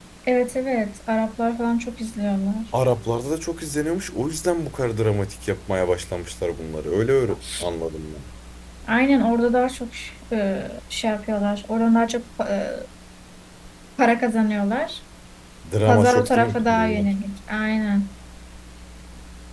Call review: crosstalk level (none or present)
present